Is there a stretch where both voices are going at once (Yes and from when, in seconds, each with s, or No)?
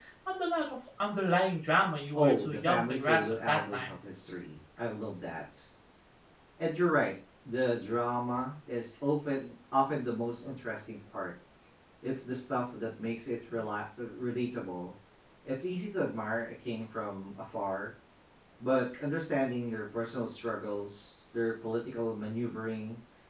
Yes, from 2.1 s